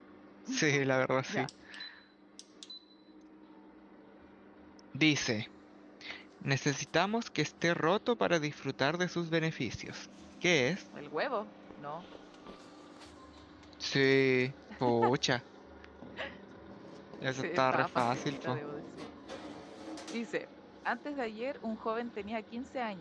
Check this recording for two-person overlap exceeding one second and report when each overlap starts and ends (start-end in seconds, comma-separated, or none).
17.4-18.6